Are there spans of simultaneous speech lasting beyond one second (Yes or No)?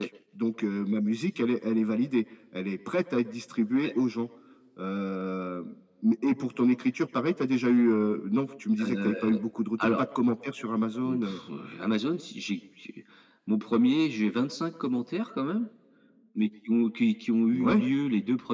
No